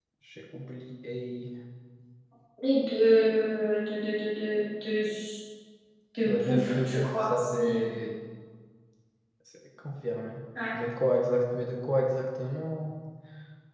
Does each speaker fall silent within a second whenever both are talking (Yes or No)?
No